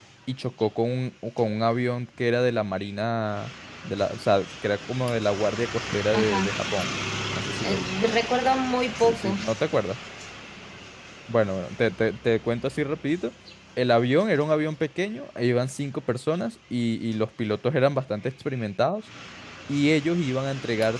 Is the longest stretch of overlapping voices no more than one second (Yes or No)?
Yes